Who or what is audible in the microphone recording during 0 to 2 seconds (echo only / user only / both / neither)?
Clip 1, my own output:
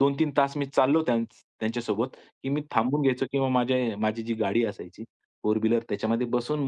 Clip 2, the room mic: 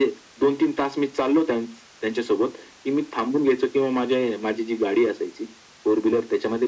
echo only